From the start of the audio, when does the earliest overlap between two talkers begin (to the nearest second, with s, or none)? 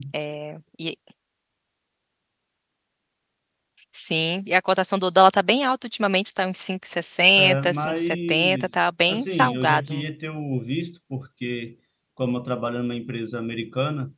7 s